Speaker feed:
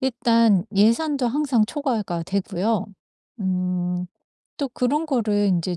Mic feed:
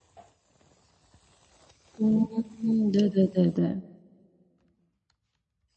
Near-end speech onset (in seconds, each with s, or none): 2.0 s